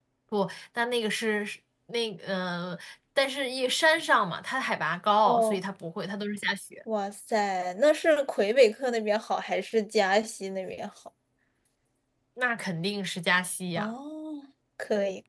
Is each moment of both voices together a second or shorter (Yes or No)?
Yes